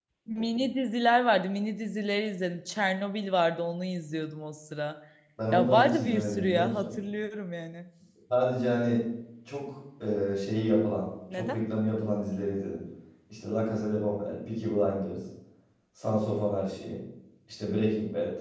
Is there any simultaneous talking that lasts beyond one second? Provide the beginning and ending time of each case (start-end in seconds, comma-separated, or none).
5.5-6.9